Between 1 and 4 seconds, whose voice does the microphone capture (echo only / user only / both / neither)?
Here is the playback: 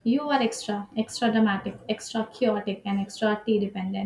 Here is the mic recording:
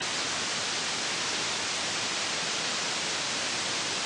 neither